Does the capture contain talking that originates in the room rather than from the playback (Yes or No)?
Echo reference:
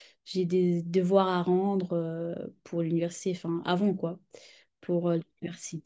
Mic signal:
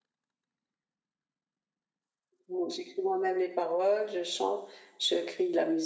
Yes